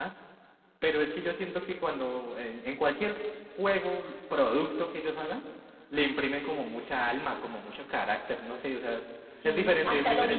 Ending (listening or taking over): taking over